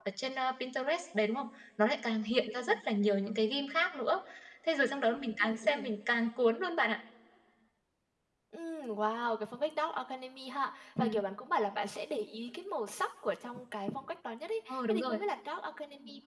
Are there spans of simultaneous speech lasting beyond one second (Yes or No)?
No